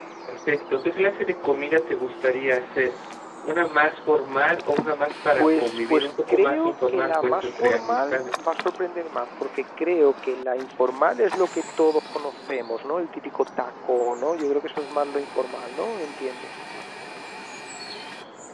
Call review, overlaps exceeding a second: present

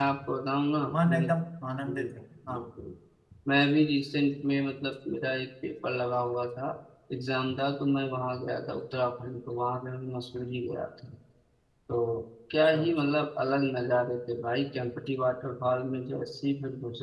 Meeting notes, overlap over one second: none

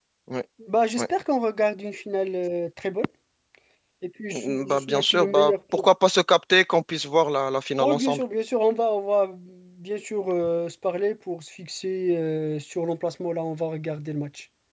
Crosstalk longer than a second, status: present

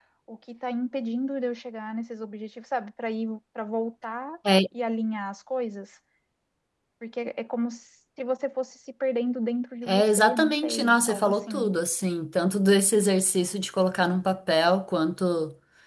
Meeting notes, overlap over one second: present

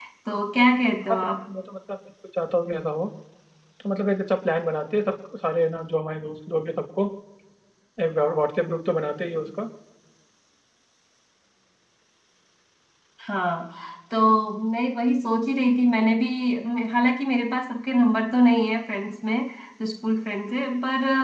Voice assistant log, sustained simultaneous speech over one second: none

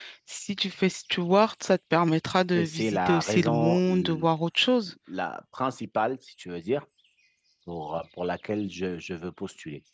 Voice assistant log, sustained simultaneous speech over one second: present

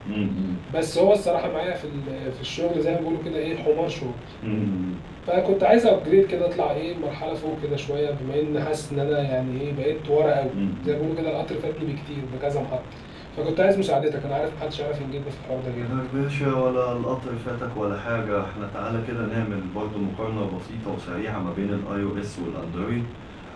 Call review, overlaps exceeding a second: none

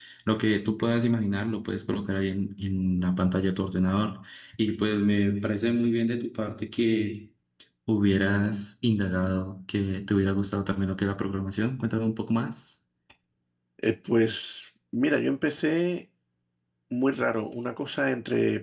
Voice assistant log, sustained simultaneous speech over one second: none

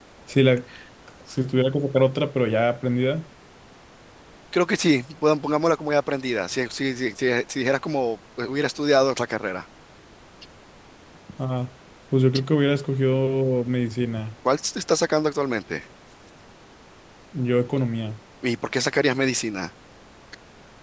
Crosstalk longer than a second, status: none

